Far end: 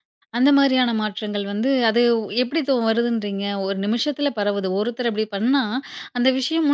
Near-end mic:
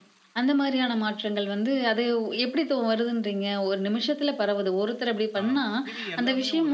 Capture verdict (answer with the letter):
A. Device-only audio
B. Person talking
B